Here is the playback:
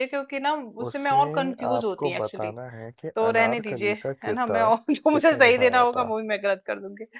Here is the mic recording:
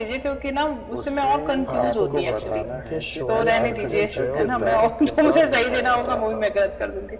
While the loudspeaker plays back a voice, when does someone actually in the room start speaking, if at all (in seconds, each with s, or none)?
1.7 s